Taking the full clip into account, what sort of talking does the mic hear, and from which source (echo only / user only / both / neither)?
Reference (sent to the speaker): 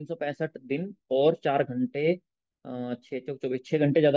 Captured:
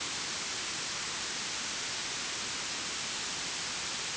neither